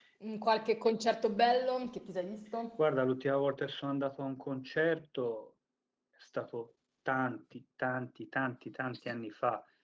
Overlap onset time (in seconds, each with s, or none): none